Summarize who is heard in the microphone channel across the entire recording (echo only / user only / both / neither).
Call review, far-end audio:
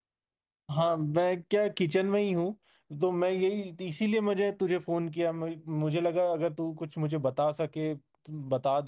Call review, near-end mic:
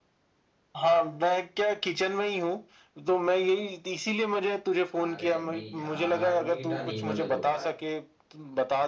both